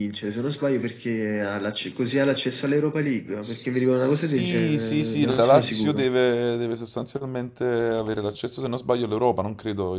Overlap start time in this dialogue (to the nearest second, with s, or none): 3 s